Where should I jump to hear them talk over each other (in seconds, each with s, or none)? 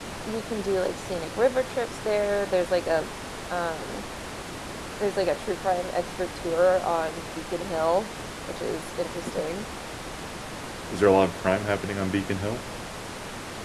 none